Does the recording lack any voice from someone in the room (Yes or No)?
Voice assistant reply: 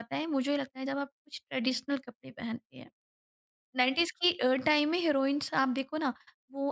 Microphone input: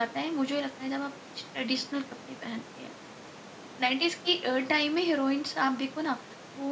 Yes